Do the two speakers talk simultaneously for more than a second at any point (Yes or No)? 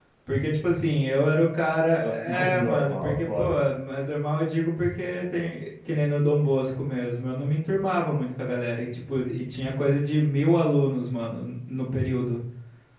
Yes